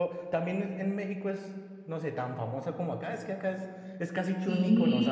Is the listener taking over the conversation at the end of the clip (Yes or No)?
No